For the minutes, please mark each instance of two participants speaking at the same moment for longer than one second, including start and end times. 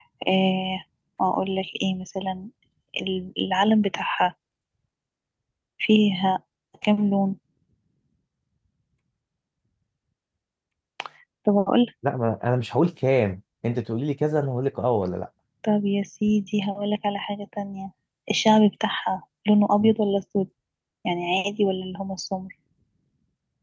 none

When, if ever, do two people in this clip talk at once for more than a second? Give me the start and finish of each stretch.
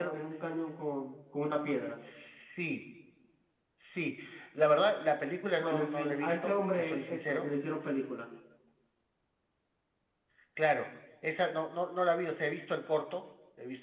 5.6-7.5

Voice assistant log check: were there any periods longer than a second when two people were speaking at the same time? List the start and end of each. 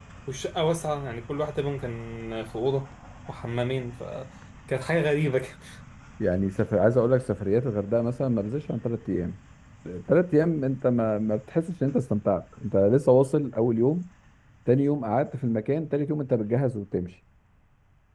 none

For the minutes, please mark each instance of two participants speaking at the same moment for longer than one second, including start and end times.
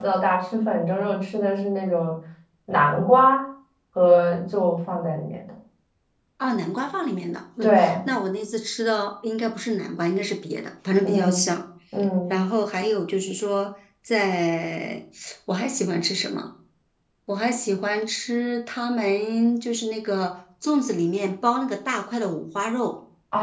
none

